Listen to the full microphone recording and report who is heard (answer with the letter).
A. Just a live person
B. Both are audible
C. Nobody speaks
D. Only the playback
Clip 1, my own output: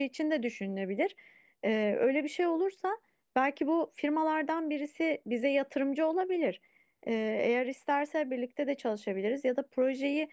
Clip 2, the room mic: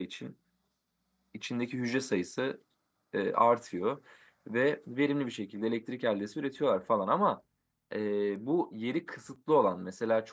A